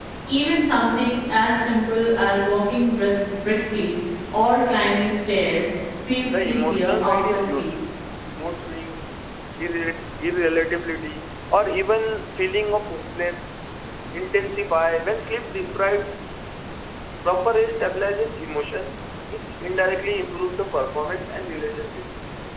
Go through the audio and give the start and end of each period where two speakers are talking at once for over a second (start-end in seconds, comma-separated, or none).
6.3-7.7